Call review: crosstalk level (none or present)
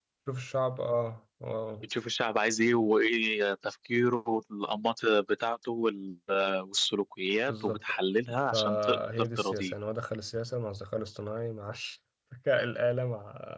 present